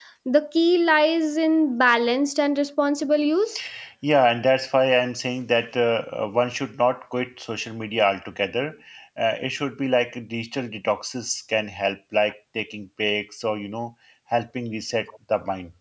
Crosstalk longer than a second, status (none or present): none